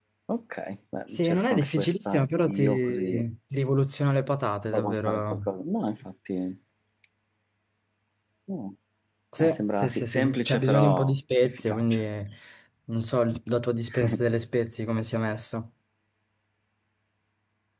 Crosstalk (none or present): present